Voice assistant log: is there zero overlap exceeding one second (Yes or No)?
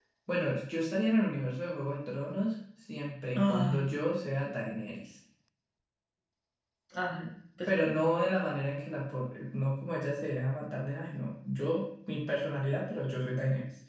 Yes